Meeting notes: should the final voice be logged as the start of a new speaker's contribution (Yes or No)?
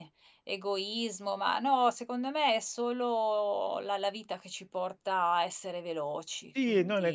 Yes